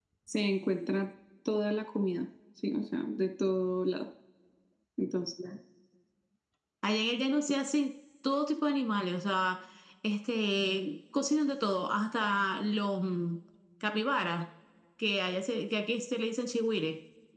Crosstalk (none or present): none